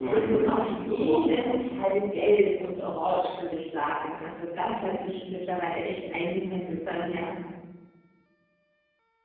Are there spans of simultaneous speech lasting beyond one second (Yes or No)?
Yes